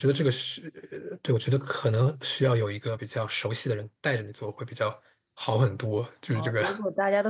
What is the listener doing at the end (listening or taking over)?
taking over